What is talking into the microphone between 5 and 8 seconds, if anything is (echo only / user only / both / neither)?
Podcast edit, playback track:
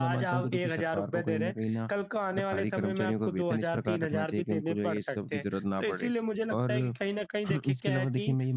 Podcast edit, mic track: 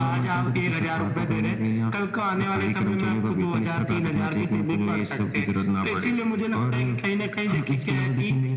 echo only